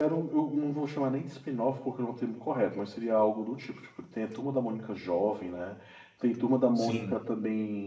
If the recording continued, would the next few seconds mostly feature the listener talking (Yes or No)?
No